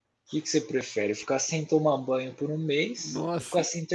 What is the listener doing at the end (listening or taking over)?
listening